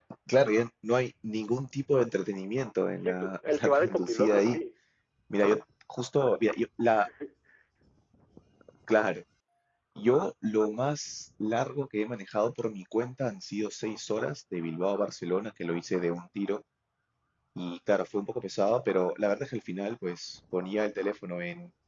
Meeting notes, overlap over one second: present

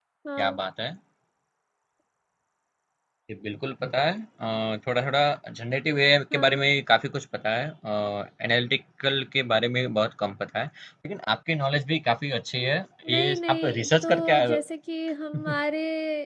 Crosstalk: present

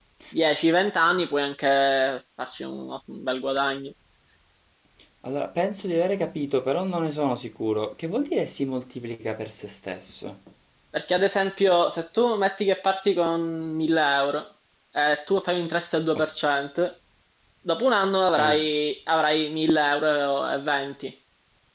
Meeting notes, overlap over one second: none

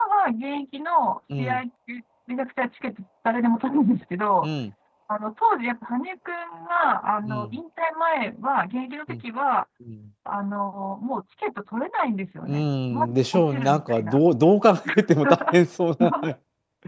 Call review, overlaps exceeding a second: present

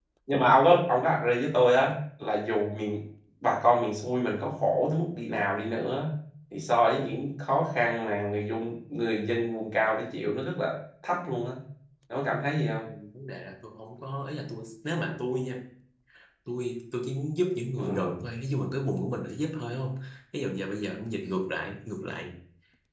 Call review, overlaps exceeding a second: none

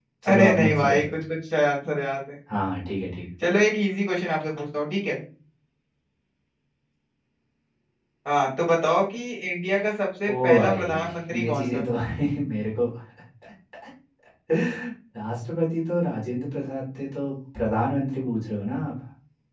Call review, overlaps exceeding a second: present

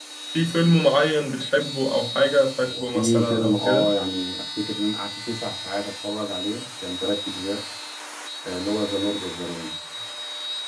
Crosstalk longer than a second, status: present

